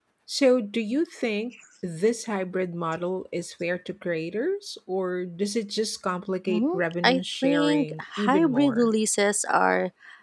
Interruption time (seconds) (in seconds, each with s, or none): 6.5 s